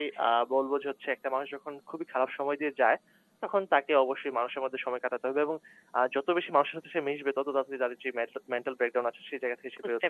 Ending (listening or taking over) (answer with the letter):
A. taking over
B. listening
A